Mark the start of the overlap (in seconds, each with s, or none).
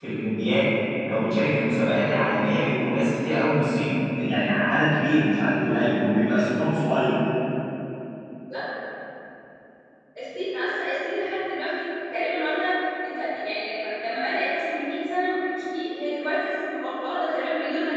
none